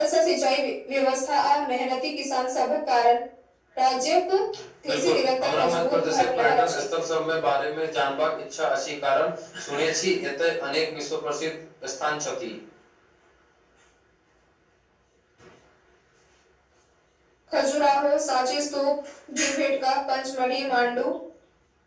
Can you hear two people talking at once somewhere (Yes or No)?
Yes